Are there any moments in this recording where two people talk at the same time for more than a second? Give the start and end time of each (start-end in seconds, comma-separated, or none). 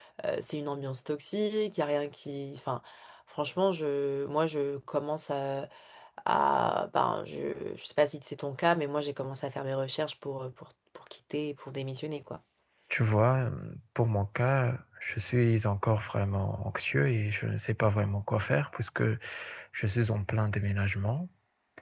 none